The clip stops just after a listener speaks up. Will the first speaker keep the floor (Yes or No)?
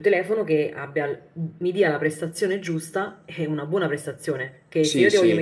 Yes